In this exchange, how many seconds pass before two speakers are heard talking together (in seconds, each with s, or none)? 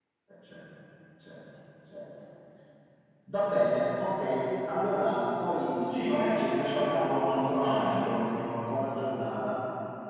5.8 s